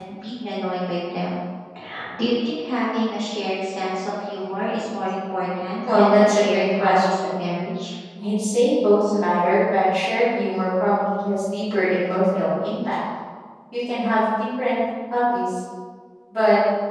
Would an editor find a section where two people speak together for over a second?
Yes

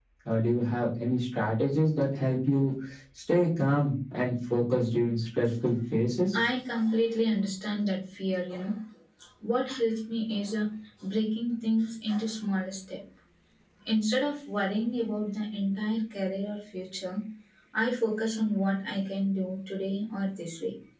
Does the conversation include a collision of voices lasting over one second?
No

